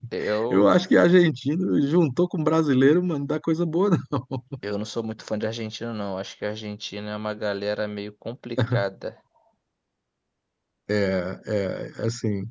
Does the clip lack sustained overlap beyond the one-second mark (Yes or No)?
Yes